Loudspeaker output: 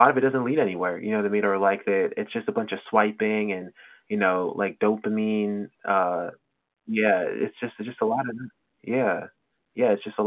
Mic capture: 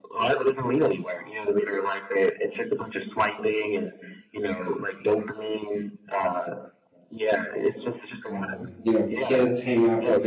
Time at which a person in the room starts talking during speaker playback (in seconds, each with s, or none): 8.3 s